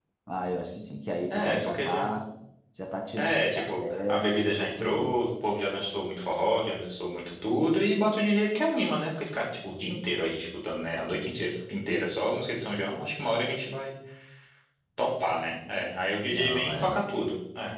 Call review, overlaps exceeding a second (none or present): present